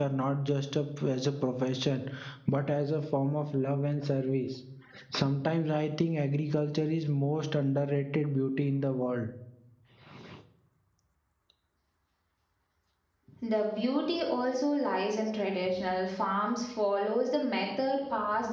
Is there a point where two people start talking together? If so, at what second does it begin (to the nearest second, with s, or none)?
none